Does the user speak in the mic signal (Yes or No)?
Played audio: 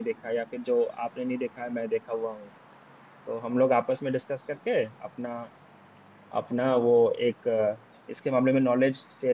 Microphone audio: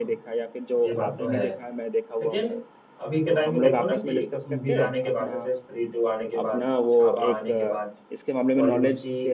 Yes